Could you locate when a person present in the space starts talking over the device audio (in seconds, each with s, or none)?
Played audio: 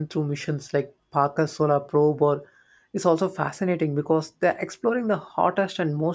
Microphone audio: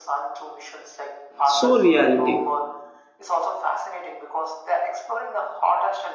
1.4 s